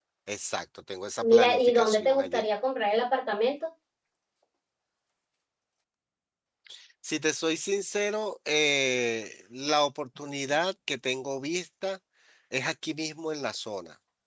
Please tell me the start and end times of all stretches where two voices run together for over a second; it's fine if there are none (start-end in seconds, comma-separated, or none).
1.2-2.4